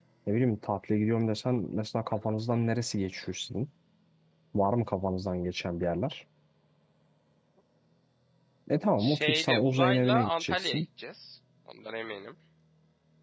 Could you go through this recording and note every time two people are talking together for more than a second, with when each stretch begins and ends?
9.0-10.8

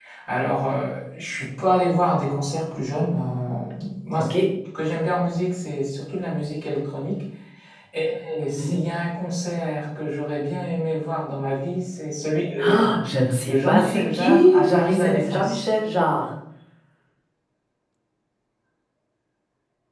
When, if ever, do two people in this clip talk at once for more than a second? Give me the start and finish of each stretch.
13.5-15.6

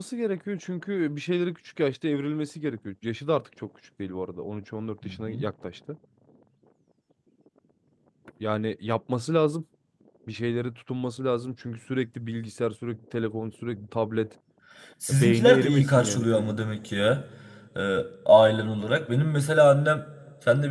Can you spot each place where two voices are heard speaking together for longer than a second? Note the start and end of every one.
15.1-16.6

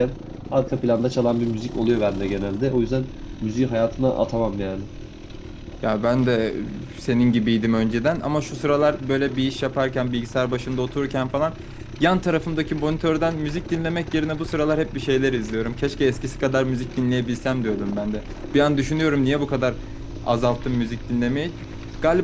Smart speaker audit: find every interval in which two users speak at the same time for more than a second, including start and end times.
none

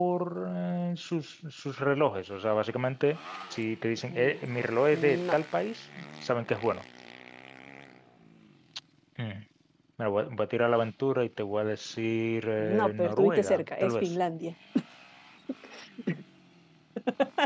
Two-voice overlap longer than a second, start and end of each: 12.6-14.1

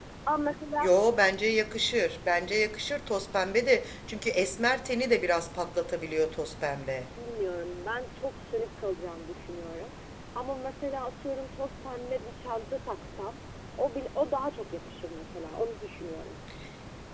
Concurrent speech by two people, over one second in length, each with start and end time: none

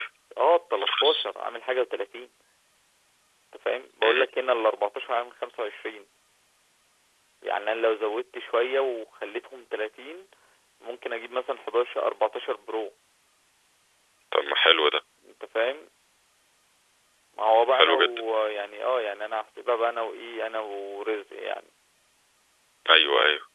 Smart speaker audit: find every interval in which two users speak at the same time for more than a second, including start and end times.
none

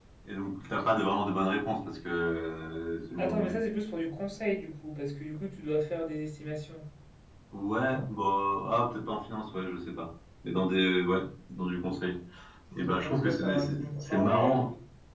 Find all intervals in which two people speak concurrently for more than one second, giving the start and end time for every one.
13.0-14.6

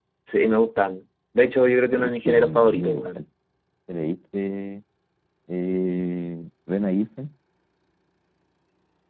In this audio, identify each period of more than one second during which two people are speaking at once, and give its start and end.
1.9-3.2

